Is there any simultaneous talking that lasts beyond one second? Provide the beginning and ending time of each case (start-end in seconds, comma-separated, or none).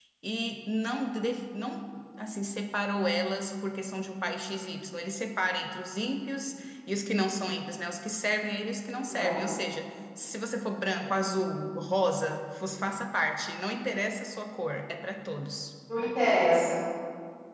none